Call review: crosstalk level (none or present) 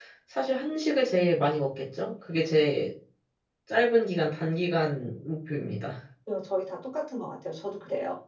none